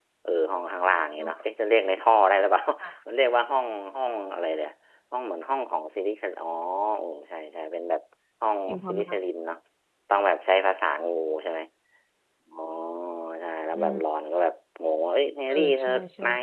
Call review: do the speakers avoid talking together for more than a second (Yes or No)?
Yes